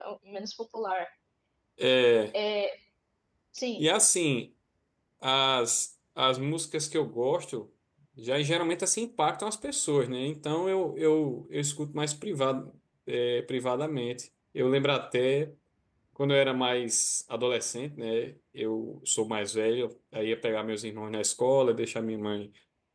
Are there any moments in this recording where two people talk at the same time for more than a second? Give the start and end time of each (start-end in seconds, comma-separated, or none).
none